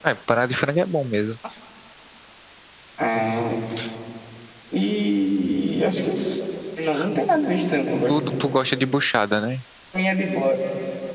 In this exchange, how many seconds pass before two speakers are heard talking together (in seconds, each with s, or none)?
none